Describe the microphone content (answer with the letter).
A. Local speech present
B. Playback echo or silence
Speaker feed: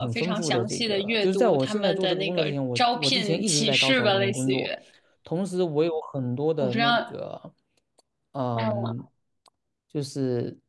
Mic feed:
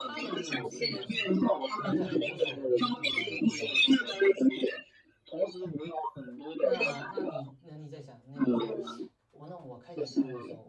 A